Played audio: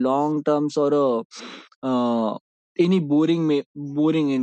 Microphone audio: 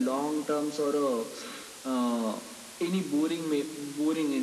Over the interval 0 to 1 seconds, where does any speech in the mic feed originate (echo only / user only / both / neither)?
echo only